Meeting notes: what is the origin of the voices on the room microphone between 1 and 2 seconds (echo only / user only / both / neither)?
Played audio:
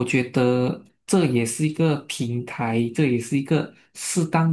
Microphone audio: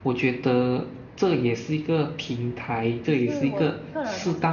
echo only